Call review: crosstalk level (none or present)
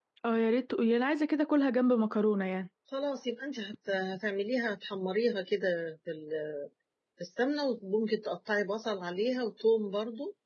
none